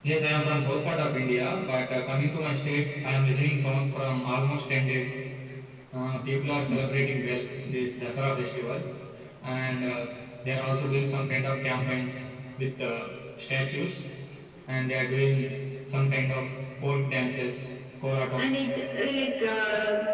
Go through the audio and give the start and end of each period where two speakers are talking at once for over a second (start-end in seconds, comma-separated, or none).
none